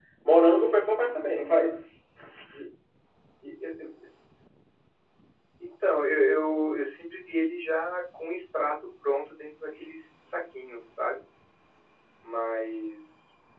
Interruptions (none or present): none